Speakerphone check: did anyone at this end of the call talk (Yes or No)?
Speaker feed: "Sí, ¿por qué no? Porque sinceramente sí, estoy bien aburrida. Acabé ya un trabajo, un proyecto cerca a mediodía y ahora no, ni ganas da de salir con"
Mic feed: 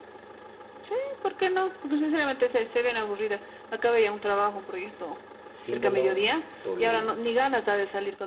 Yes